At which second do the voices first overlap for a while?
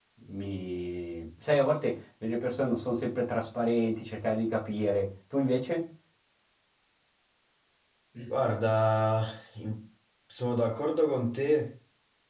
none

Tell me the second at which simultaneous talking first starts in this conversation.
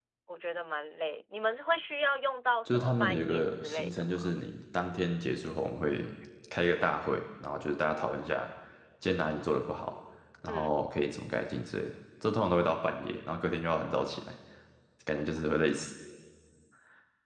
2.7 s

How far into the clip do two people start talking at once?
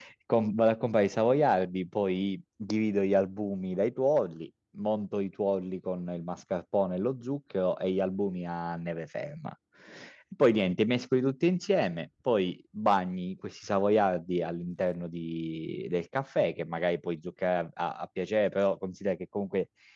none

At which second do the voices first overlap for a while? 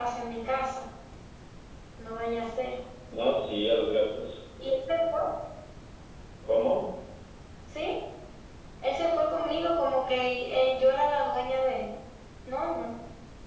none

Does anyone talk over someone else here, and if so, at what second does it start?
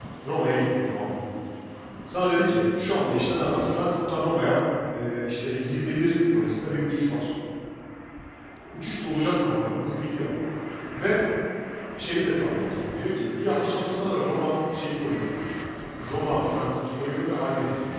none

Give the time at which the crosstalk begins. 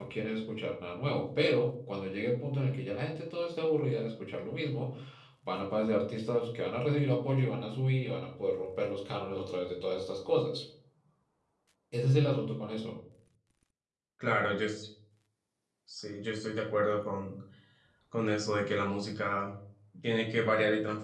none

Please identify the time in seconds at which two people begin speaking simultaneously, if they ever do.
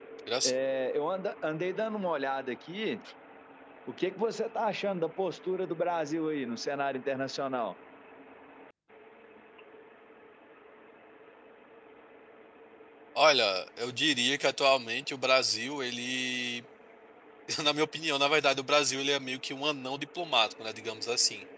none

